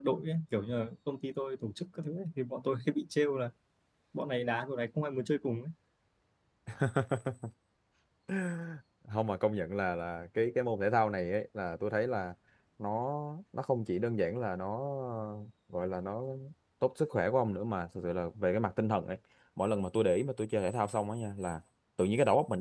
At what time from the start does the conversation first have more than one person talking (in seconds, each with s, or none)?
none